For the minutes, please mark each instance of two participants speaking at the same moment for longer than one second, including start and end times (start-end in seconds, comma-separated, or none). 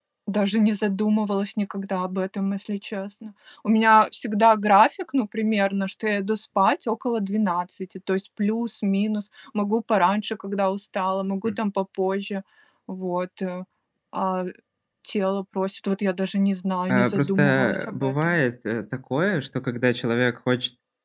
16.9-18.4